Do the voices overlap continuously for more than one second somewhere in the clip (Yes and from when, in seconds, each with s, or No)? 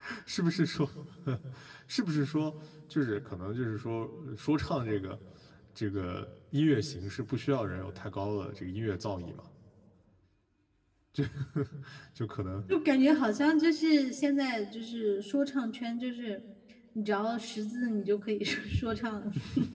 No